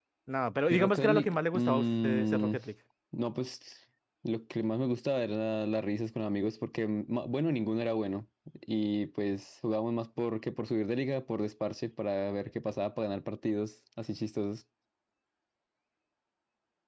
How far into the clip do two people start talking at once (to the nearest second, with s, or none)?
1 s